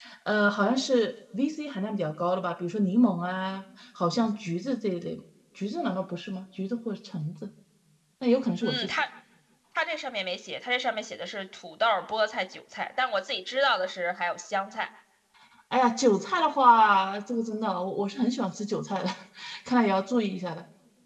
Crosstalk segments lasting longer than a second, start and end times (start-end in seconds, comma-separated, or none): none